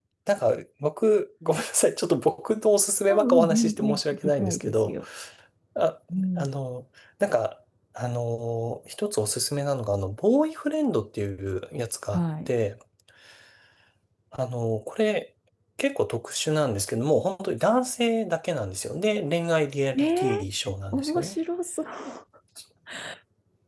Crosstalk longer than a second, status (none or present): present